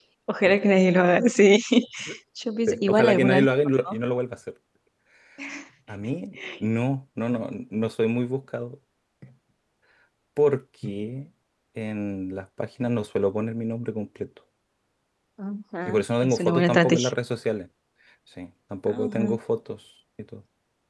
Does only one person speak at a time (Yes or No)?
No